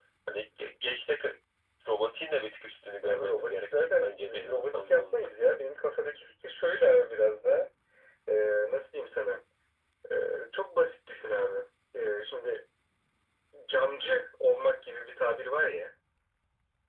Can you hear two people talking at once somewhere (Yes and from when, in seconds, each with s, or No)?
Yes, from 3.0 s